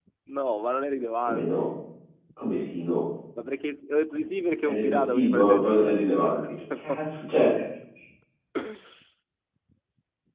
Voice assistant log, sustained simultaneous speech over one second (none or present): present